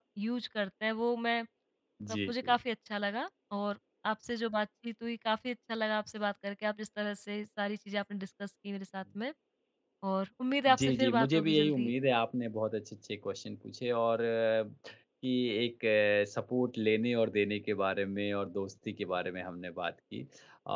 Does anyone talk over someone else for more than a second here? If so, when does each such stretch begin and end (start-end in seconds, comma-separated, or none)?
10.7-11.9